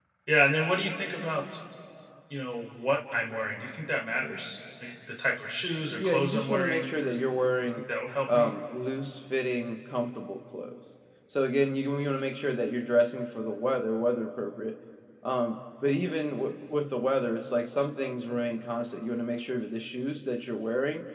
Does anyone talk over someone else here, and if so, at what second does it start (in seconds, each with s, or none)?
5.9 s